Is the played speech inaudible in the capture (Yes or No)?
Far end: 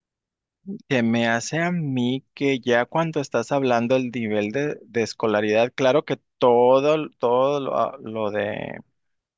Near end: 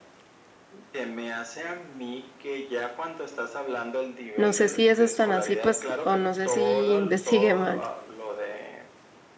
No